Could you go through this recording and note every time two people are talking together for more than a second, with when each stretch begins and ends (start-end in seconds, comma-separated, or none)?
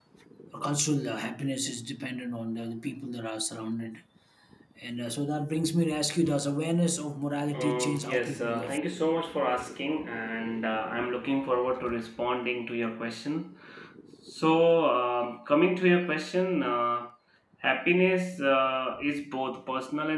7.5-8.8